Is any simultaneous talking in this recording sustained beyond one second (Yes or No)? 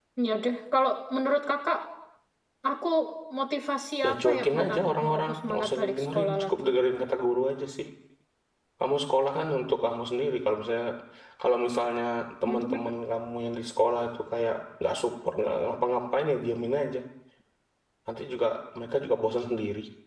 Yes